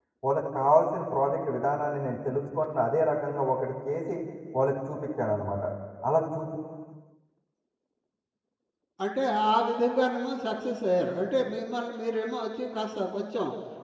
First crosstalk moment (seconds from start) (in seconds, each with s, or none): none